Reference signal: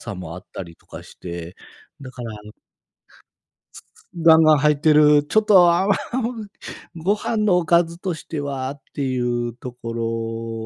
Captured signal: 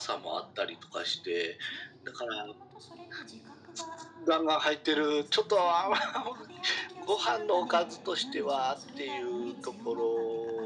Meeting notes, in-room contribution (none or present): present